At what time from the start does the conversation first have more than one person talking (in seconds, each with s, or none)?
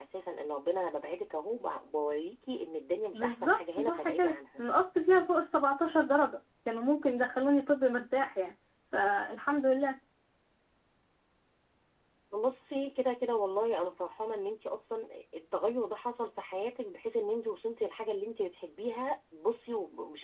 3.1 s